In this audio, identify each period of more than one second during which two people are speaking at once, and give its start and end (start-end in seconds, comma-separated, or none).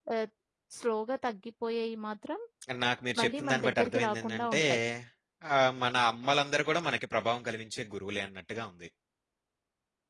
3.2-4.6